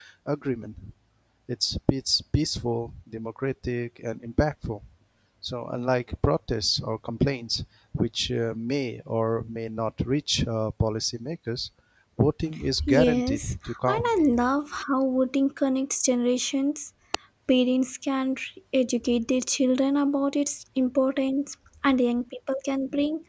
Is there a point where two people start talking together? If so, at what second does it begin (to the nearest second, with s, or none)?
13 s